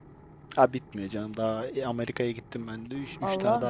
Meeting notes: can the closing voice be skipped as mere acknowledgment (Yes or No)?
No